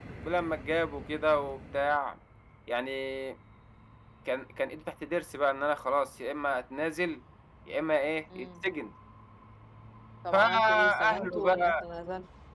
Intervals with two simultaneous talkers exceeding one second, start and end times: 10.3-11.8

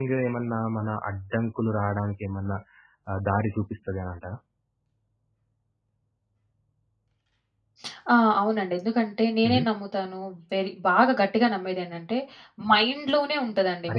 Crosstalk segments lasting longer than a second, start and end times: none

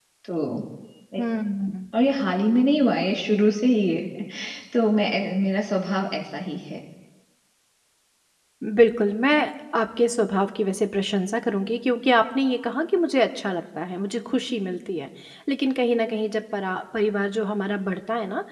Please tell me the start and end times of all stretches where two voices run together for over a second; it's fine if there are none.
none

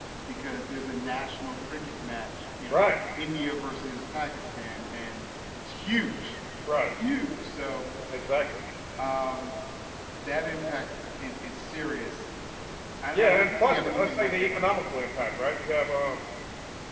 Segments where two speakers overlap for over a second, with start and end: 13.1-14.7

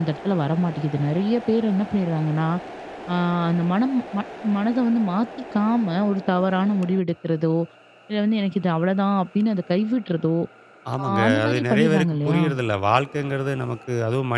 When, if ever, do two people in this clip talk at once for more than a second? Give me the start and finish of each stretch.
11.0-12.4

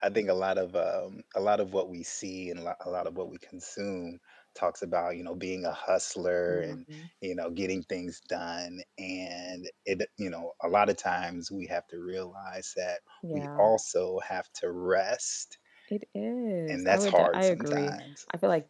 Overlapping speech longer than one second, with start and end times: 16.7-17.9

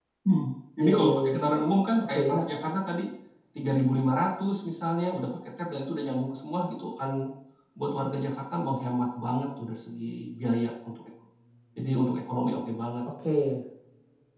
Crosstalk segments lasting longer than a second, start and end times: none

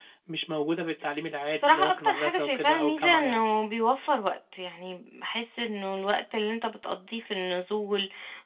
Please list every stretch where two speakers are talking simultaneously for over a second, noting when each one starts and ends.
1.5-3.4

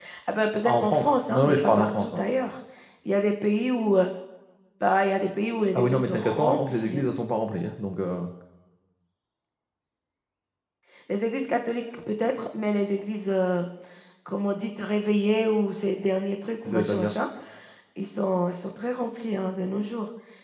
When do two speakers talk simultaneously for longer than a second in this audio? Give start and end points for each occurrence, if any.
0.7-2.2, 5.8-7.0

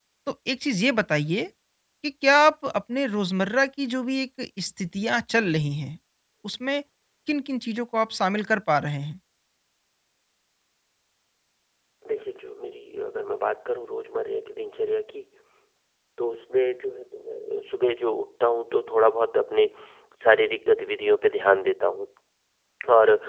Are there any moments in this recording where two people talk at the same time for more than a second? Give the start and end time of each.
none

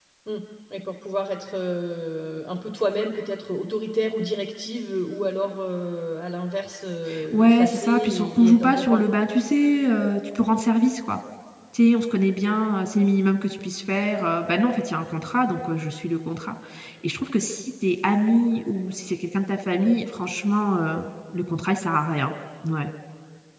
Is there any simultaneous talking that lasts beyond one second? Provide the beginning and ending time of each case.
7.3-9.0

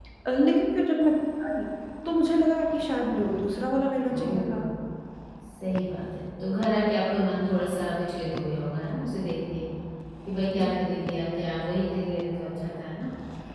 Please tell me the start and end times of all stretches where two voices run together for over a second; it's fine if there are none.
none

